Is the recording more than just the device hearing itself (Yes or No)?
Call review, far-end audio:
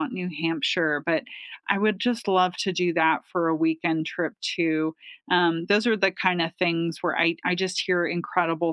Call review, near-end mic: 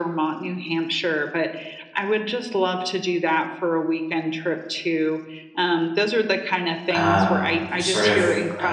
Yes